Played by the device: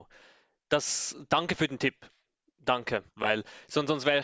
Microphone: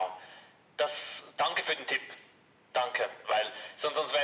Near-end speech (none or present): none